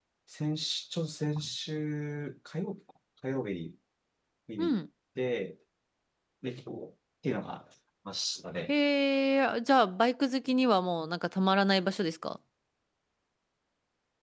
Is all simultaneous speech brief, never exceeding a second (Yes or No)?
Yes